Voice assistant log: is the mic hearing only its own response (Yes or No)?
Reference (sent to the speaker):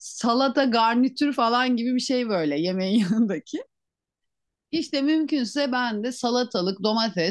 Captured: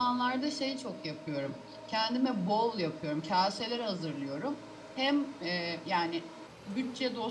No